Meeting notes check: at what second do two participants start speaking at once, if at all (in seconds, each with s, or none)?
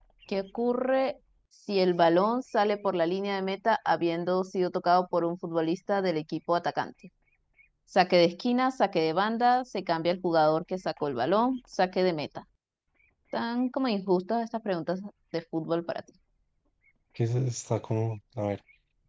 none